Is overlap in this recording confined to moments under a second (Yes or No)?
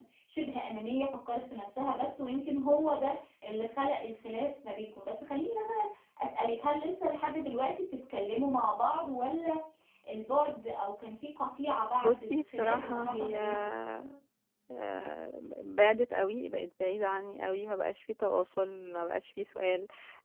No